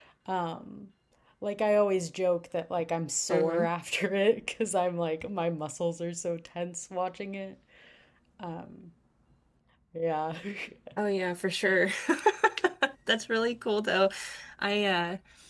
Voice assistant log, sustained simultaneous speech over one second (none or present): none